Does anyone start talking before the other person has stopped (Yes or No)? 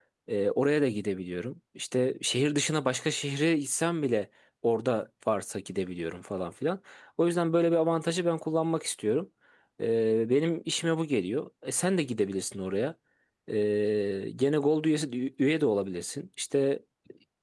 No